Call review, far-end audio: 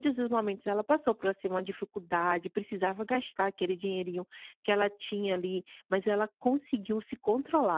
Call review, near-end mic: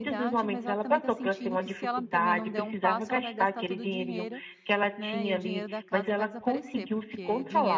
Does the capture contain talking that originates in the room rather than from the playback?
Yes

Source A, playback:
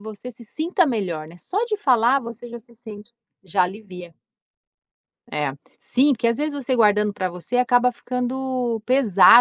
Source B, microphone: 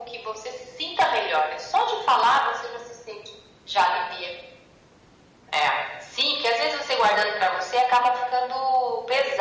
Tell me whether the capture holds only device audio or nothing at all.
Yes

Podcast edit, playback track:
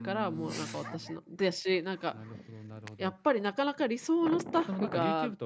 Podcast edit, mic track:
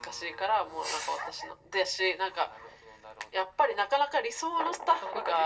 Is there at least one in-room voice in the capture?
No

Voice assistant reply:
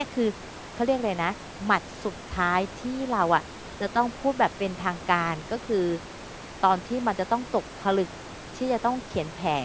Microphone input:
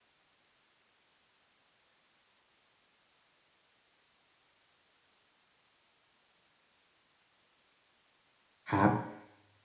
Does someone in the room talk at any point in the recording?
Yes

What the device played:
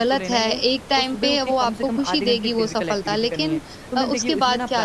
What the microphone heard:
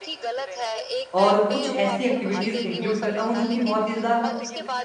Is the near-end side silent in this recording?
No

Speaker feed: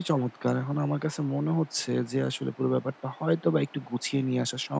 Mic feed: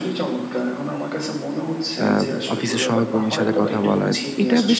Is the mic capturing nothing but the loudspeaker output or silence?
No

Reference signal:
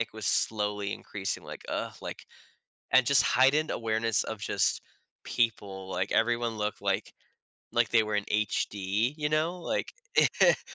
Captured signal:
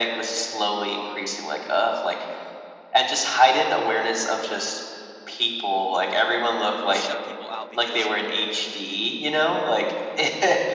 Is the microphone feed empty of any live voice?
No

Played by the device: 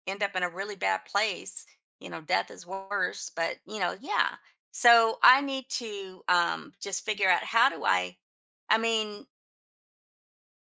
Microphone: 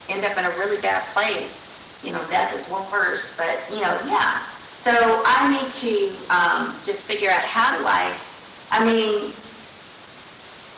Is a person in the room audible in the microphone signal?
No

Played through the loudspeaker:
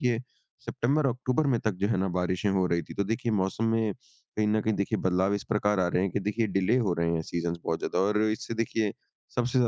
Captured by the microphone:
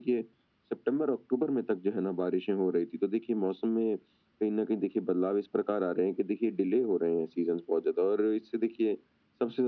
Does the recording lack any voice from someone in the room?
Yes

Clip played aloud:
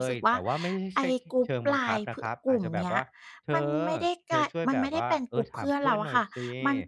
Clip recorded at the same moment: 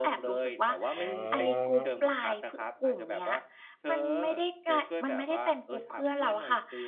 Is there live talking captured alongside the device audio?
Yes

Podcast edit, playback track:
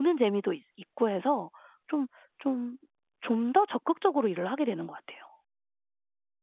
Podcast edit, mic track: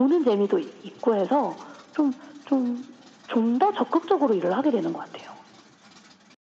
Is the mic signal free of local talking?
Yes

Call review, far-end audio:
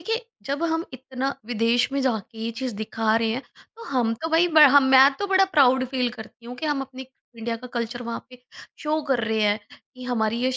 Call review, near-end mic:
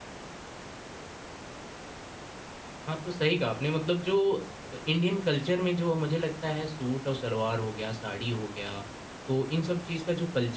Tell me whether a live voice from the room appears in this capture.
Yes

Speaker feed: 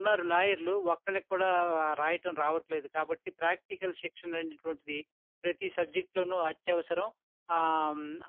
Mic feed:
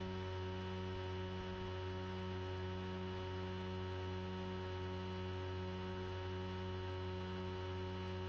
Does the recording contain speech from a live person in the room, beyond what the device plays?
No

